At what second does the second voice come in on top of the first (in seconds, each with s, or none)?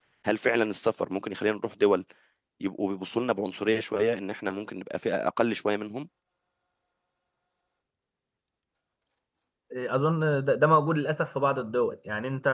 none